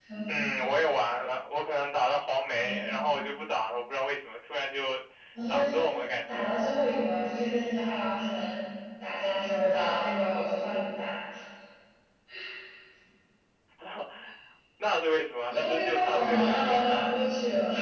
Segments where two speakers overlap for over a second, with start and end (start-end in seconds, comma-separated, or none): 15.5-17.0